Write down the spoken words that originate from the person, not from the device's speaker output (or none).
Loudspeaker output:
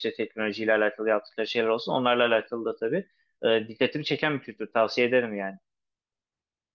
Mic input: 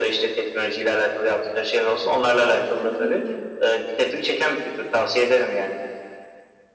e, ya da ne bileyim